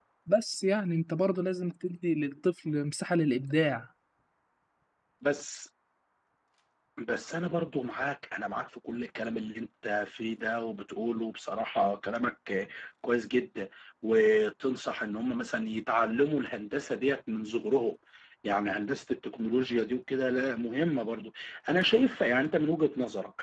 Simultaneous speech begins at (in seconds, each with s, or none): none